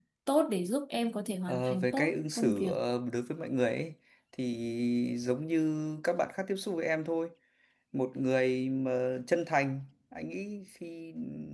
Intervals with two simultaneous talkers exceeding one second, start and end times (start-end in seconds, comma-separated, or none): 1.5-2.7